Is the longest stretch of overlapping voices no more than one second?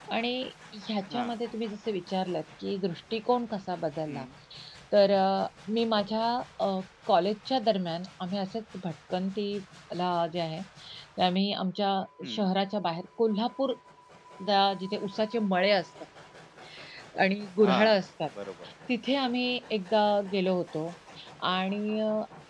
Yes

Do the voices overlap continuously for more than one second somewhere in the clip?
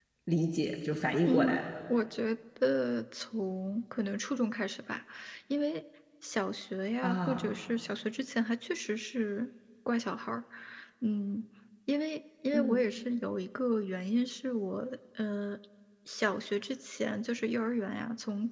No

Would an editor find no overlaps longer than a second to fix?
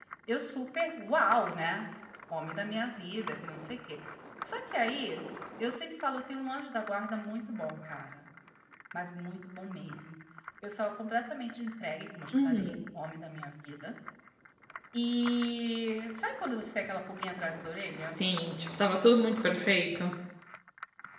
Yes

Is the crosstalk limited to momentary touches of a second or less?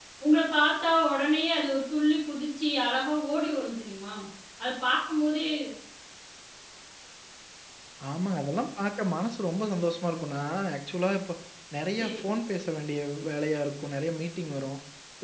Yes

